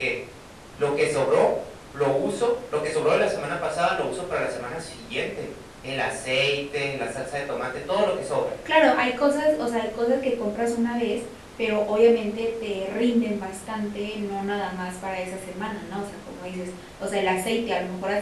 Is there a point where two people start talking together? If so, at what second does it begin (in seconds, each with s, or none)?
none